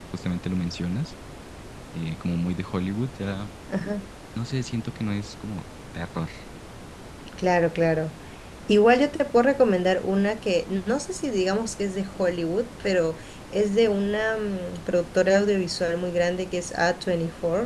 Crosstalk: none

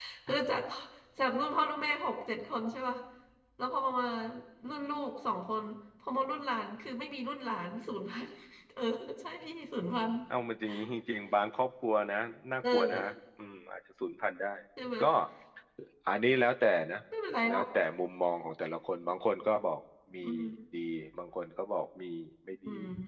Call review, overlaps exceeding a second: none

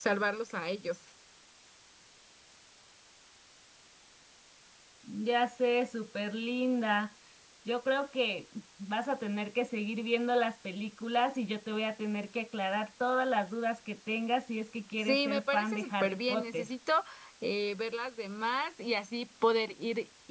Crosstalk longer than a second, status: present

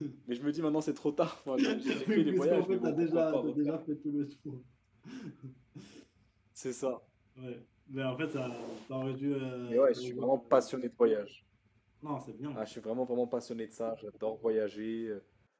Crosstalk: present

